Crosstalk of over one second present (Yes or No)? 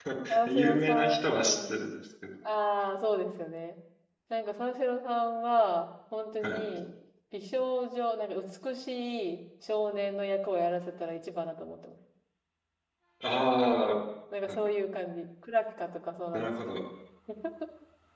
Yes